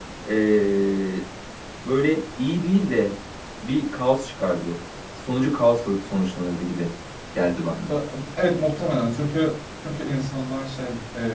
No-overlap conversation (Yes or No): Yes